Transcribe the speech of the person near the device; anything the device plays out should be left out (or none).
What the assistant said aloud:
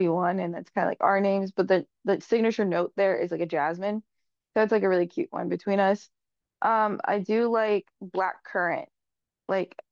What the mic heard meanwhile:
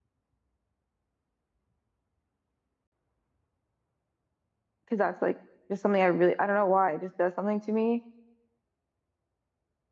Cause that's like just something I really I don't know why it just does something to me.